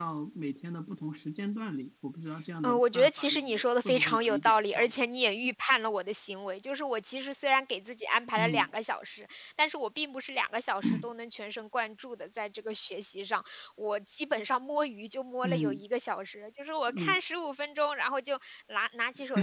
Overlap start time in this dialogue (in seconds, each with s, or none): 2.6 s